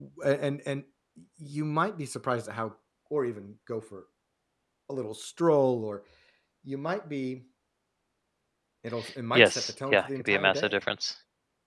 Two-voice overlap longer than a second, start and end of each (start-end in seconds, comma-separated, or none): 9.3-10.7